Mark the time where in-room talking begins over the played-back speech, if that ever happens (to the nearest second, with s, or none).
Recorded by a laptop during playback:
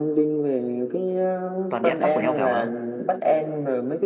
2 s